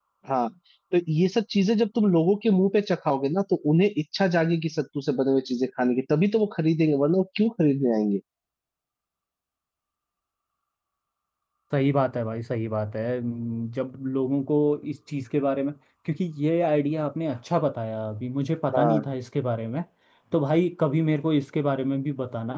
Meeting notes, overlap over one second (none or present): none